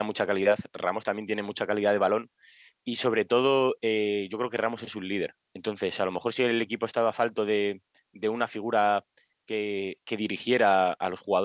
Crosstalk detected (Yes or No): No